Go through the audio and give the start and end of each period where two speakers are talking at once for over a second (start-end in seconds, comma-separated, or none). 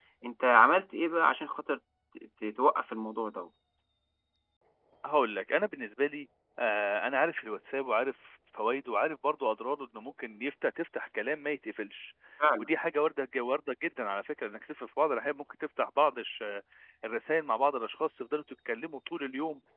none